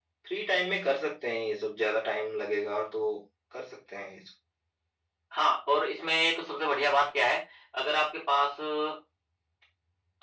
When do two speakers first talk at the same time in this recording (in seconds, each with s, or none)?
none